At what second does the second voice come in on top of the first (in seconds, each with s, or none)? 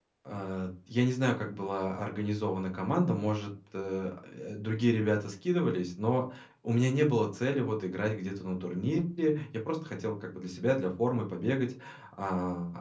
none